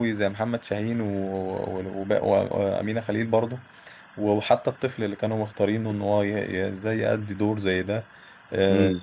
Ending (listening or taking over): listening